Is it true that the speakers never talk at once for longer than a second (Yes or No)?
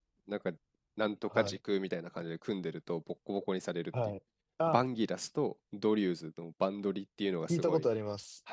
Yes